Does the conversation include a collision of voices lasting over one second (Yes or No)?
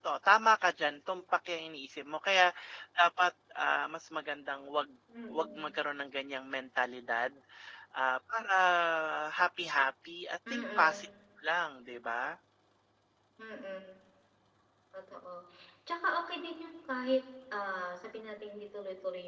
No